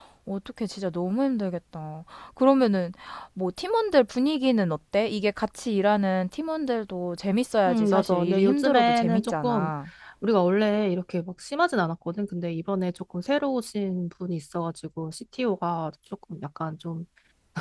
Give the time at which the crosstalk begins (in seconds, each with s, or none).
7.7 s